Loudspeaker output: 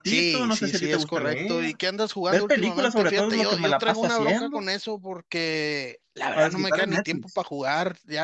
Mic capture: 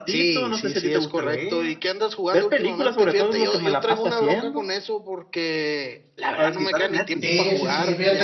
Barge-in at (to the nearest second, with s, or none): 7 s